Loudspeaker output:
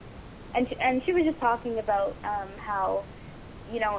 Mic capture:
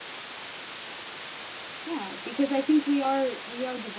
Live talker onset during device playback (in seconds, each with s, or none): 1.8 s